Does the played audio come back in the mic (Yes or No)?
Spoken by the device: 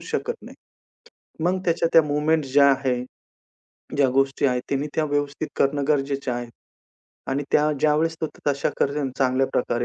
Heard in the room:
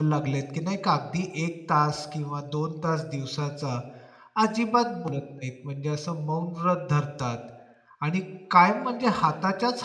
No